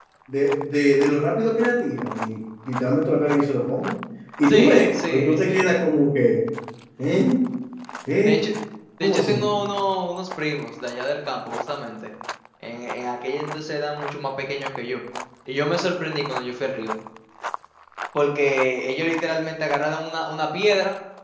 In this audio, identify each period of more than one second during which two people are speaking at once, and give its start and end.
4.4-5.9

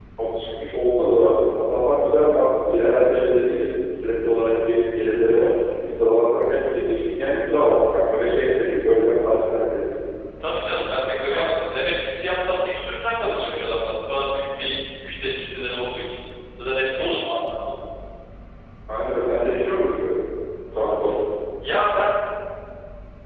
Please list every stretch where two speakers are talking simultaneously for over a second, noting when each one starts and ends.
none

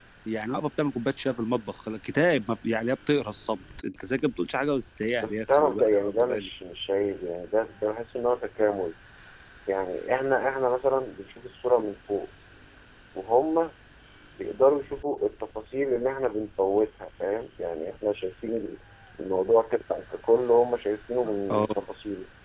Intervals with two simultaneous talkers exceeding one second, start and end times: 5.2-6.5

